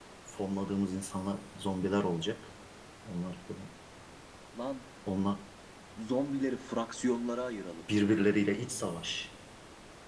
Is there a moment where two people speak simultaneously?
No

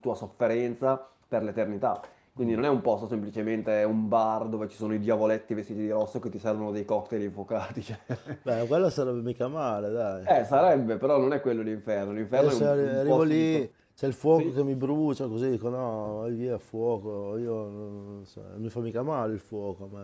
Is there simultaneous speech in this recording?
Yes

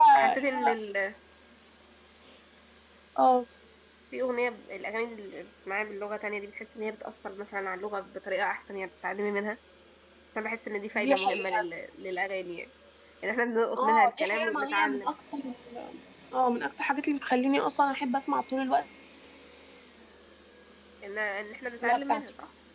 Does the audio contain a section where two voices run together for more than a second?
Yes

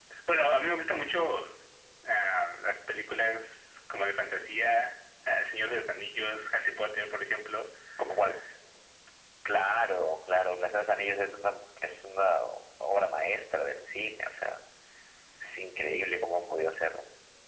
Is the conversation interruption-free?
Yes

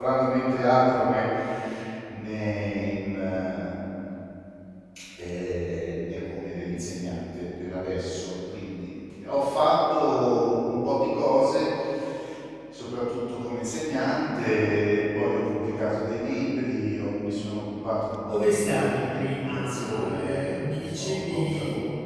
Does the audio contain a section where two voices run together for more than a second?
Yes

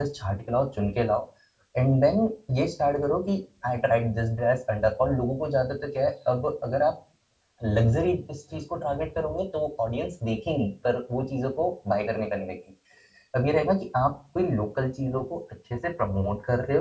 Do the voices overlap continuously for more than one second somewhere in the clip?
No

